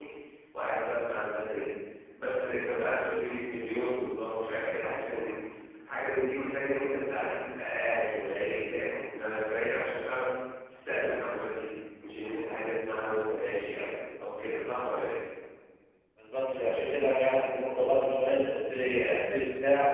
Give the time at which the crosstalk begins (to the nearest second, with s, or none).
none